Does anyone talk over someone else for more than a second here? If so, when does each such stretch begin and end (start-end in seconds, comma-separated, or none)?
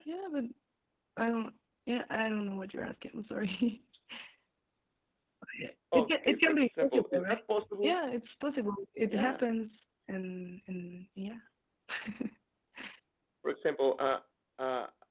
5.9-7.4